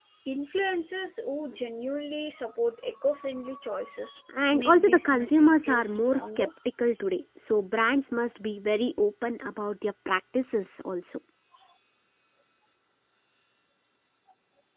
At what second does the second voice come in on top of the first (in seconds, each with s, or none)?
4.3 s